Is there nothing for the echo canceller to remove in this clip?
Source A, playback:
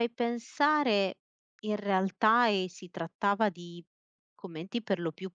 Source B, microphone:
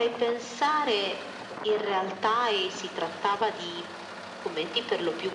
No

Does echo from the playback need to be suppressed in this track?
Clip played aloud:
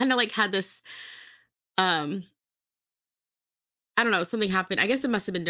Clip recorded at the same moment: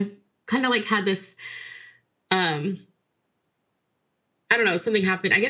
Yes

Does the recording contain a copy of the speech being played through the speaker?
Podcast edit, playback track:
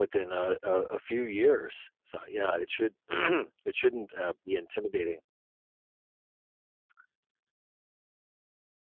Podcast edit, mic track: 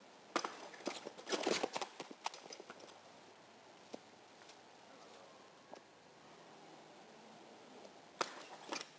No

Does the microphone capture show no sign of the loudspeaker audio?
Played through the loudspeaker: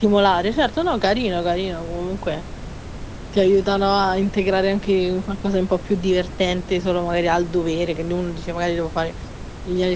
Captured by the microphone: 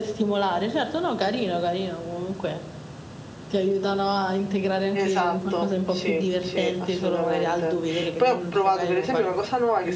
No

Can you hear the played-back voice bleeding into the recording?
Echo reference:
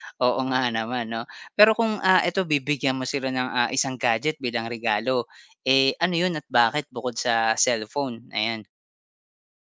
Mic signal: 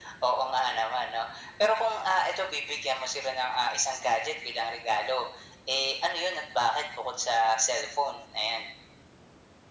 Yes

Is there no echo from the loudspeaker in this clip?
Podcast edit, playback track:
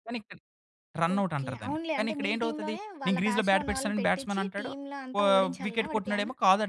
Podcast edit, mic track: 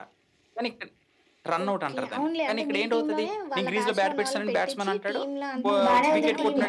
No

